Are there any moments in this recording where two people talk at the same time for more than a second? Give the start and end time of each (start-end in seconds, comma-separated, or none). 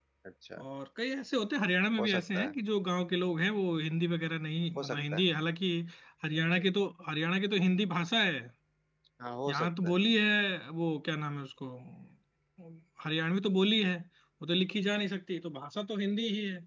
none